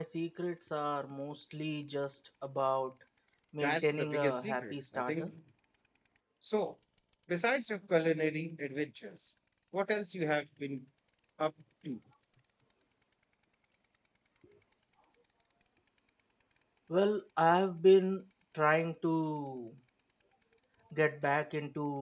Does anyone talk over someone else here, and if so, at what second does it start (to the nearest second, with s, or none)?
4 s